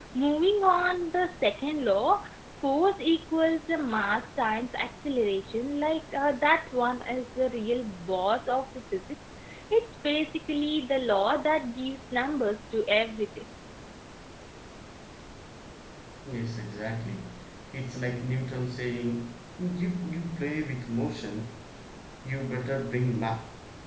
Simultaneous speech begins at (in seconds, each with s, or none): none